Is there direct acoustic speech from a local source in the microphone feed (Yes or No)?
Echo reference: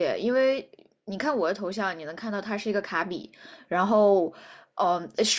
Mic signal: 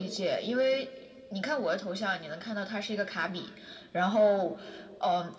No